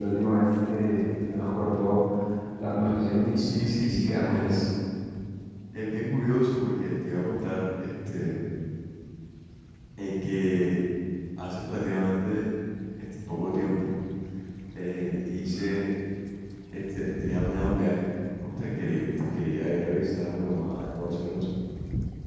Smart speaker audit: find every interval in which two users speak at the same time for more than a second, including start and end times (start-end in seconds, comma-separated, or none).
3.4-4.7